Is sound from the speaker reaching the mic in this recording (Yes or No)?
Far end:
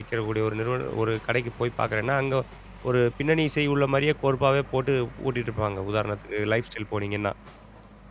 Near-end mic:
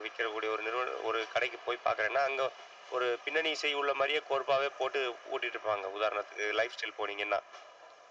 Yes